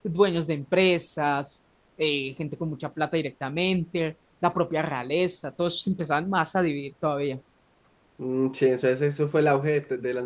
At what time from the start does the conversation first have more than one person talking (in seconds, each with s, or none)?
none